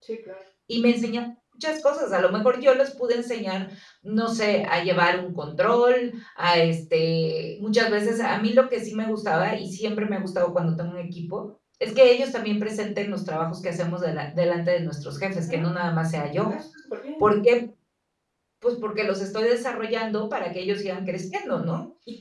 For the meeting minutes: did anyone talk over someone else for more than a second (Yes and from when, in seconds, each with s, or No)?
No